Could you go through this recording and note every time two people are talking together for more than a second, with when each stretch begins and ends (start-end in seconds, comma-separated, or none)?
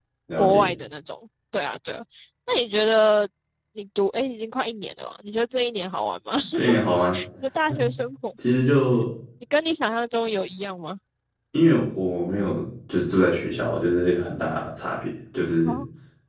none